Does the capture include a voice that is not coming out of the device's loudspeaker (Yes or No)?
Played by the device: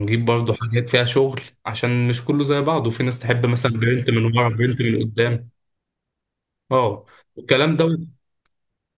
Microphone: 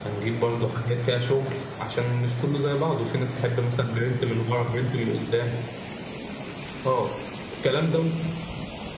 No